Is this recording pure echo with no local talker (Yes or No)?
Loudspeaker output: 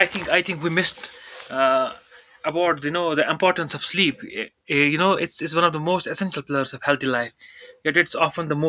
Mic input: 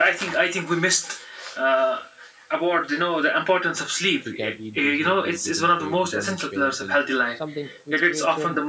No